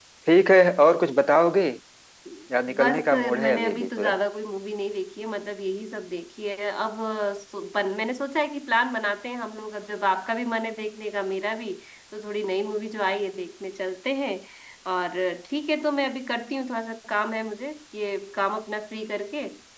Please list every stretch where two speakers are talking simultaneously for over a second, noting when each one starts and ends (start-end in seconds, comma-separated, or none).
2.8-4.2